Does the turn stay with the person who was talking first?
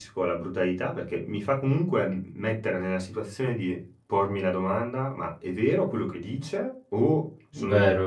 Yes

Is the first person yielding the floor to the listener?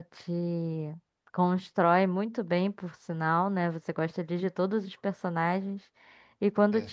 No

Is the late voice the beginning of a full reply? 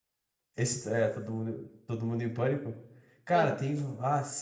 No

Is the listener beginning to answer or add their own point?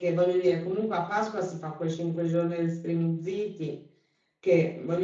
No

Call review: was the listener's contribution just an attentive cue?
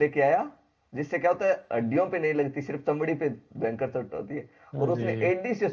Yes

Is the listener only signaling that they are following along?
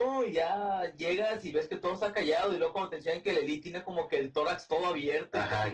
No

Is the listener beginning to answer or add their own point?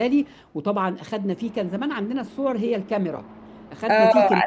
Yes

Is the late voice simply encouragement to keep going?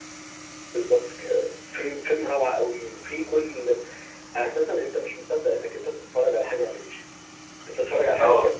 No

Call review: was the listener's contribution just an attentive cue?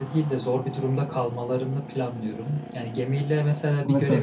Yes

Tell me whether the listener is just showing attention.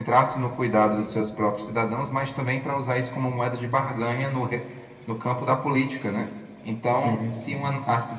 Yes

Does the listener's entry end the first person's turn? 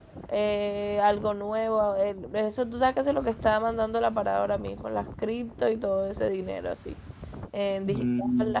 No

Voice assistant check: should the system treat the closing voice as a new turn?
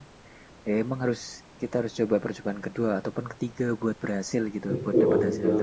Yes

